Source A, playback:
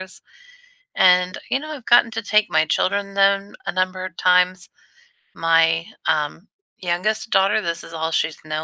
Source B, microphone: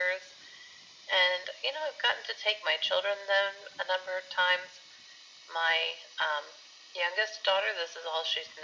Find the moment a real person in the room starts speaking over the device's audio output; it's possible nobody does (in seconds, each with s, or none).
none